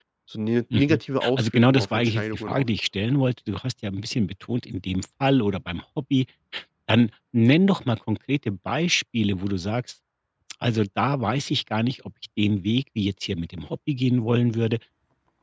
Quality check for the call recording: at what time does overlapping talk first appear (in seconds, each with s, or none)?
0.7 s